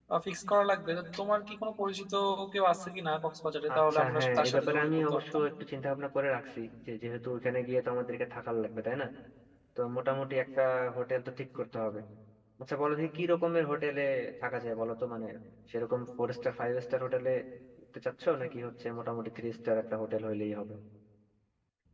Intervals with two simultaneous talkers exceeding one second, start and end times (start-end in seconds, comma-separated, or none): 3.8-5.4